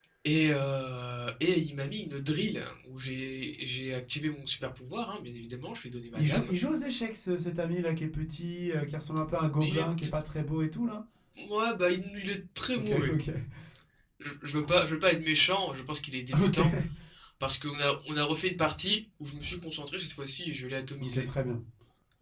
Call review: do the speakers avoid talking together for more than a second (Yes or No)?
Yes